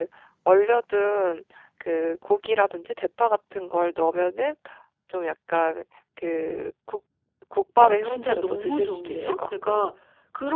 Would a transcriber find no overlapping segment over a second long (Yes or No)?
No